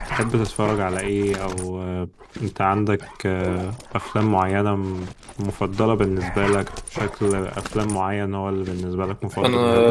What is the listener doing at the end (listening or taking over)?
taking over